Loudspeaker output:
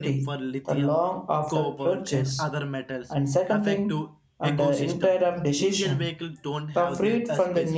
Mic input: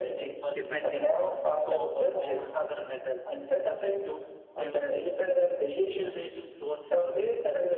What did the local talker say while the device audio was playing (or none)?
dependence on